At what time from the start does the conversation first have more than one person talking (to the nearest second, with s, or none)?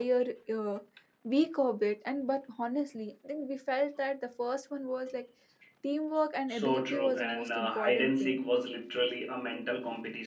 6 s